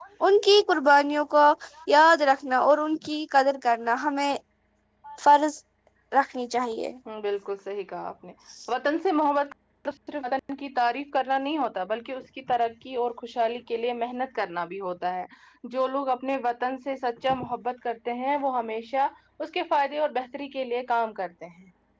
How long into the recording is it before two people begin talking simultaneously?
none

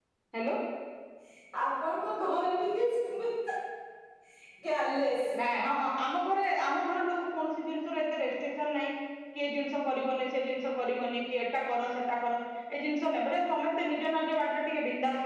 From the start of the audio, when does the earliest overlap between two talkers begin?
none

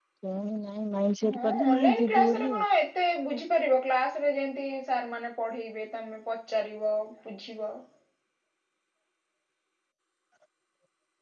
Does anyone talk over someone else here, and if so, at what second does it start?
1.3 s

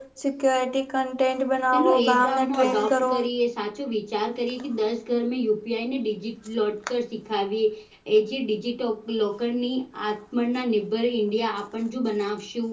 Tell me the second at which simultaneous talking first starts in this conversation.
1.7 s

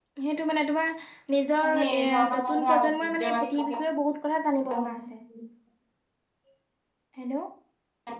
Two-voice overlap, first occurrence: 1.6 s

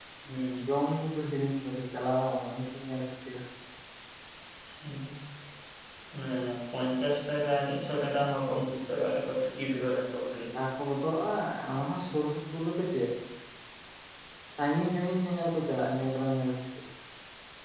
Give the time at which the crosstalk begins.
none

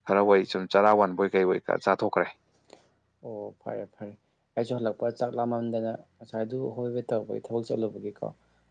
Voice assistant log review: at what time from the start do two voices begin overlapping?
none

